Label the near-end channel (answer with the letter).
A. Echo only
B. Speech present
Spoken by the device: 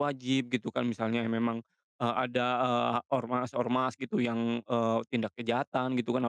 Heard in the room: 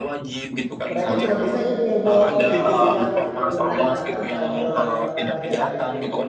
B